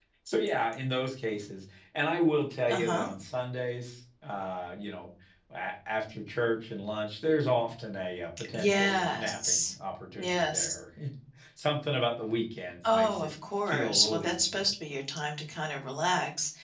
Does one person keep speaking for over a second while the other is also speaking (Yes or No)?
Yes